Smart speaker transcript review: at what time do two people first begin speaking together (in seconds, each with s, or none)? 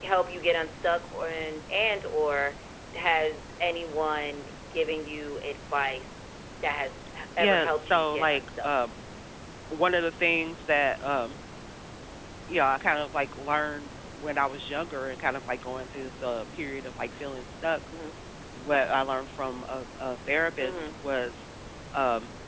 7.4 s